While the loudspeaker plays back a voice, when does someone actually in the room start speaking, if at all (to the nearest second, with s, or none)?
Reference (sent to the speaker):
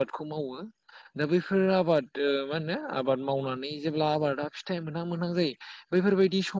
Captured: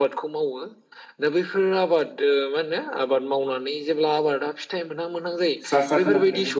6 s